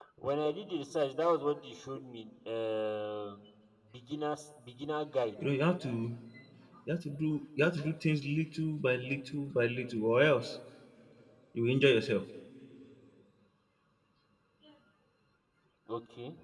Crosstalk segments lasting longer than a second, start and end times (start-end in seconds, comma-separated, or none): none